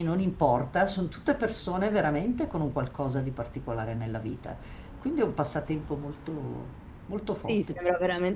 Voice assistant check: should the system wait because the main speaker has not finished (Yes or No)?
No